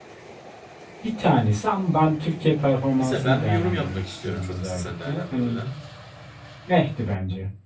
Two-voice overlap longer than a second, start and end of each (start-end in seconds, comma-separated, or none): 3.0-5.6